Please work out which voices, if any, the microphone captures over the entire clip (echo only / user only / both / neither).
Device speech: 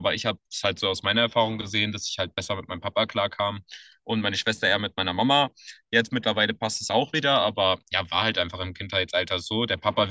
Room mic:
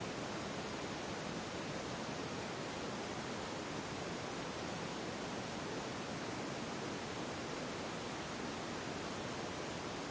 neither